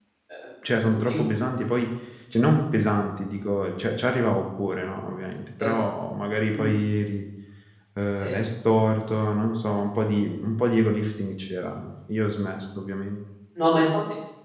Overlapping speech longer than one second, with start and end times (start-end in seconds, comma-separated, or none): none